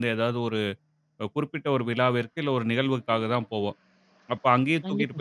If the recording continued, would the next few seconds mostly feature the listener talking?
No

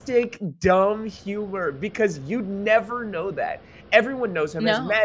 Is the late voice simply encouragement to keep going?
Yes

